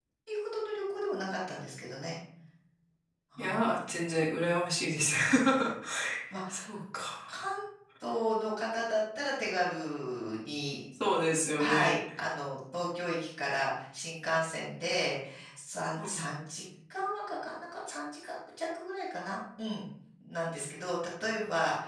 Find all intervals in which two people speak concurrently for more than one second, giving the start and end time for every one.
none

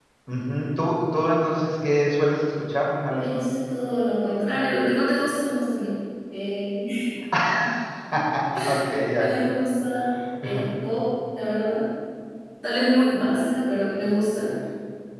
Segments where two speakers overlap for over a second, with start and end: none

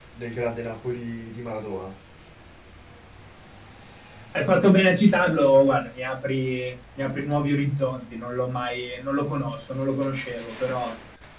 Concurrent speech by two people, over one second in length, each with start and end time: none

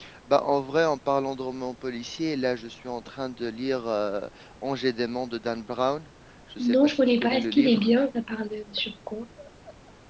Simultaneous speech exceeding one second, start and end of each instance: 6.6-7.9

